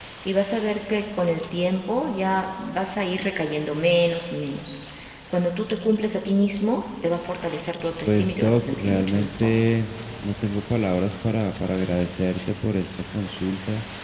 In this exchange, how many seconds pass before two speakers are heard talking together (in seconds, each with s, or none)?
8.1 s